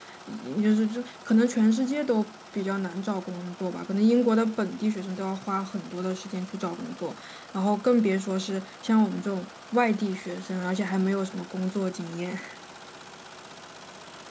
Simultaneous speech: No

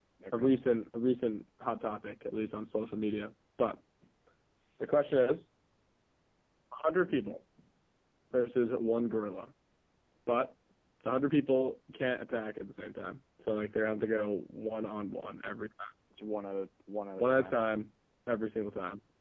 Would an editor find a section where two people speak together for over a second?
No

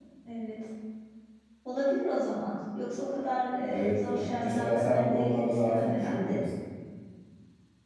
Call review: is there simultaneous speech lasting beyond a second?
Yes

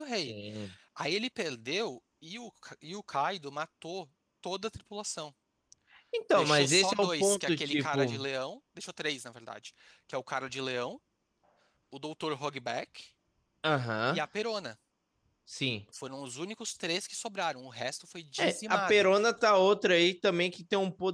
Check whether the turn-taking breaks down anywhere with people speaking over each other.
Yes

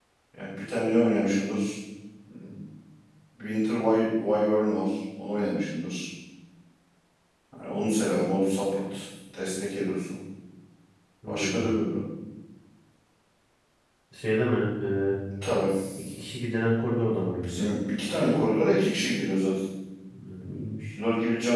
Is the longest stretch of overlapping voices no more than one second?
Yes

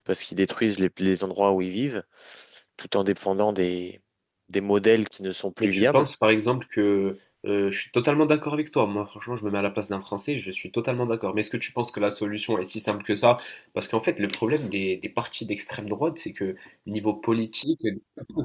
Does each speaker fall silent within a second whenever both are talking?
Yes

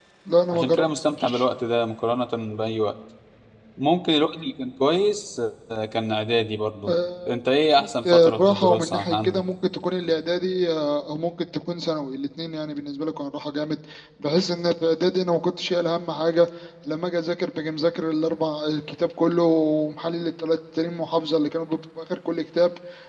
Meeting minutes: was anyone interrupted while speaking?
Yes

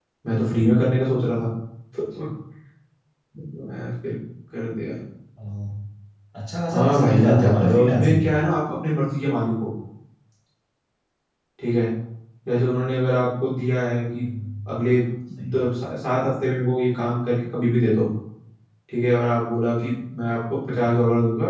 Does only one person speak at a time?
No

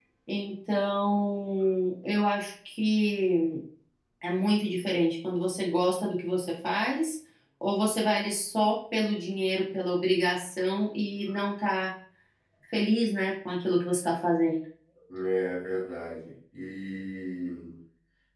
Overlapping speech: No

